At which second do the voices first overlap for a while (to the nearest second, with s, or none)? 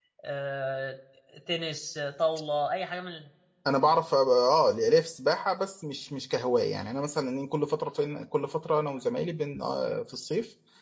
none